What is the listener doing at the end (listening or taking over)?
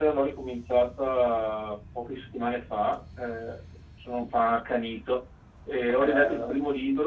listening